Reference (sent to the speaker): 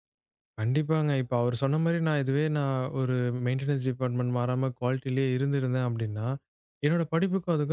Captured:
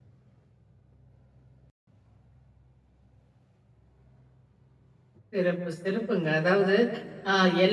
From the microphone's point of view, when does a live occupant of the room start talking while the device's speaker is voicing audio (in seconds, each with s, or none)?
5.3 s